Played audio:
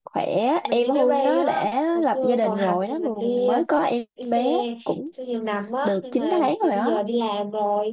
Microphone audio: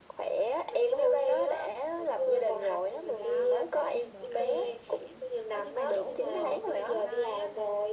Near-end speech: present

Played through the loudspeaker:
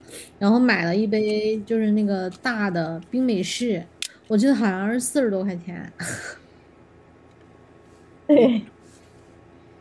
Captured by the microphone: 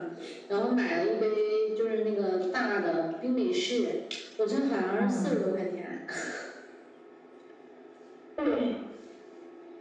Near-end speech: present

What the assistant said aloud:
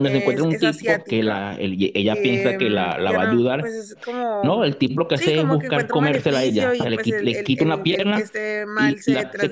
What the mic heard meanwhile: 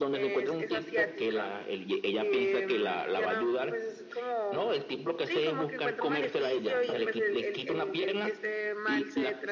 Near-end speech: none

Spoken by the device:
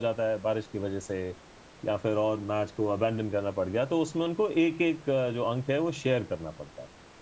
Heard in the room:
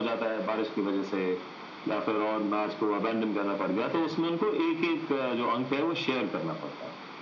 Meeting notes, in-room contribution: present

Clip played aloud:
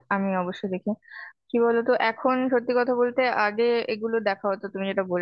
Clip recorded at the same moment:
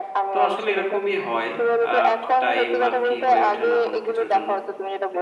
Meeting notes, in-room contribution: present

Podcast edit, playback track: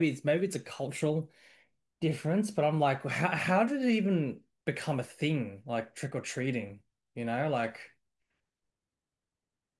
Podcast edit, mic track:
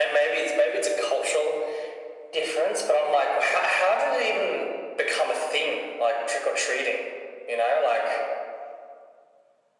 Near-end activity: none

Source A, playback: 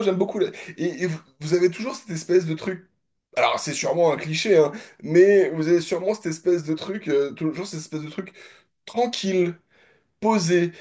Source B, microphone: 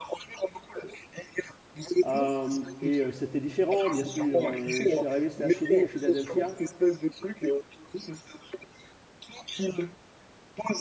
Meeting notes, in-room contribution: present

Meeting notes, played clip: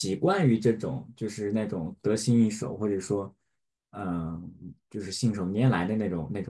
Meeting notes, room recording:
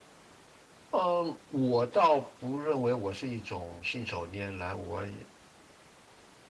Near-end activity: present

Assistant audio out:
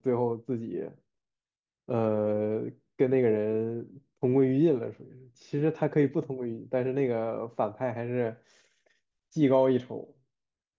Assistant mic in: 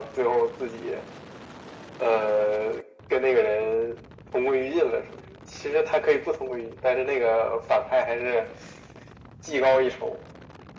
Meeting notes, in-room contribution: none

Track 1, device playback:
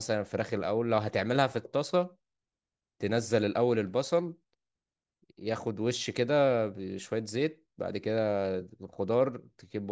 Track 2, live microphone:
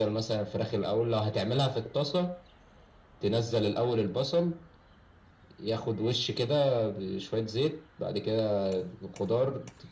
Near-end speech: none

